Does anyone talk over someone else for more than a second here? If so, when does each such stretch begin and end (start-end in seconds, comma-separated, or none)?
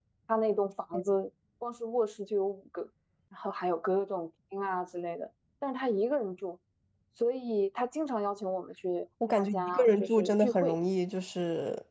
9.4-10.8